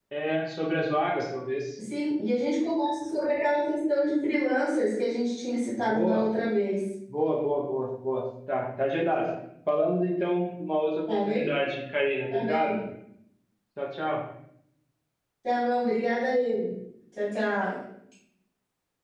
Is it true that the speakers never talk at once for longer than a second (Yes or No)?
Yes